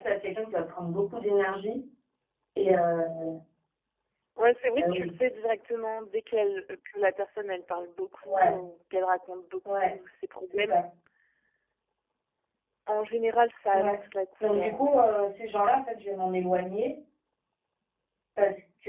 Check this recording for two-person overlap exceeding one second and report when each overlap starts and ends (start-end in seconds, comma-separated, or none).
none